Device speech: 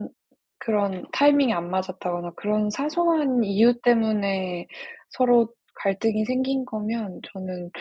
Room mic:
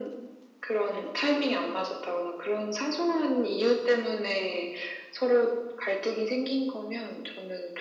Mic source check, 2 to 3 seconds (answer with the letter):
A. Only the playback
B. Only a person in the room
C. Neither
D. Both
A